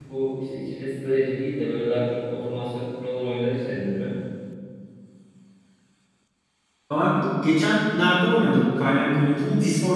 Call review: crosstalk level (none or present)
none